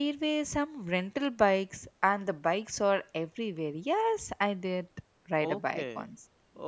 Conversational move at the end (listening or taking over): taking over